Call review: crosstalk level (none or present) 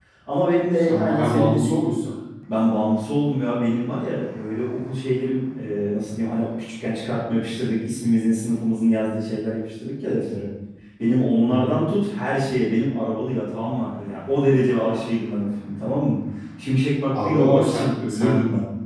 present